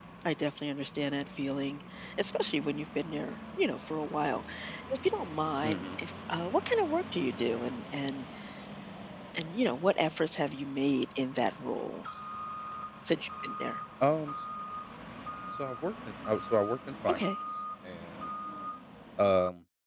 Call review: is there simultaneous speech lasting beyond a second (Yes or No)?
No